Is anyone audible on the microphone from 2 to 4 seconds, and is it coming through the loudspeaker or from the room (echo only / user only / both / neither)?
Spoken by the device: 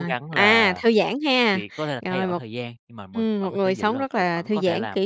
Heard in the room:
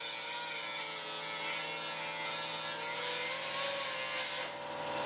neither